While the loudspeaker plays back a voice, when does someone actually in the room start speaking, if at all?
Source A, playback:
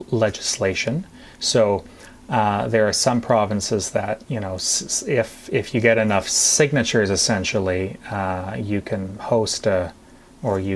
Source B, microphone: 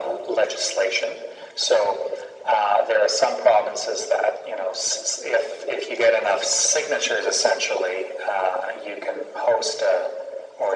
none

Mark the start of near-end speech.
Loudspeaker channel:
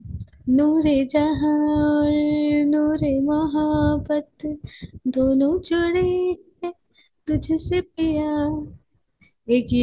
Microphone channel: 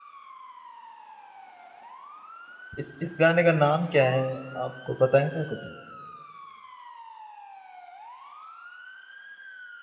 3 s

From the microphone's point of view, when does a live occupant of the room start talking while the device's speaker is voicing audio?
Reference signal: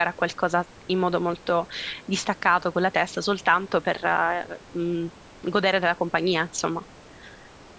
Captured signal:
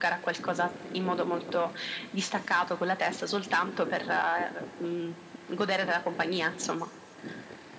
none

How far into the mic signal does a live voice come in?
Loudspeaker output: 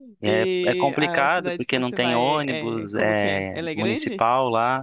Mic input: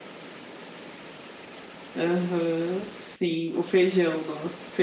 2 s

